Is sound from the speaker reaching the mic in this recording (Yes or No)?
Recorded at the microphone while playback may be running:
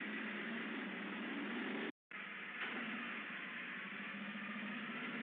No